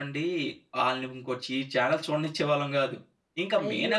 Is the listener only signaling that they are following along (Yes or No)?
No